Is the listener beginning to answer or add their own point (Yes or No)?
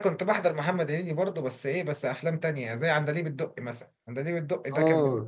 No